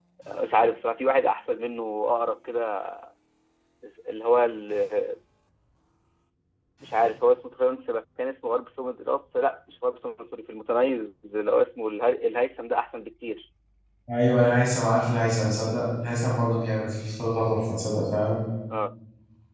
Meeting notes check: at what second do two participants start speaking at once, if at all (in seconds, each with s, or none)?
none